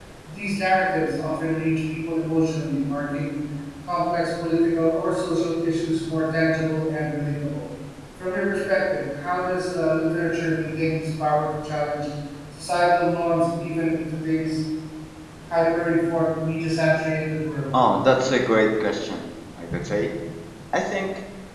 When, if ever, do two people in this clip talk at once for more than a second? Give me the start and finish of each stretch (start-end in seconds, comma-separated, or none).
none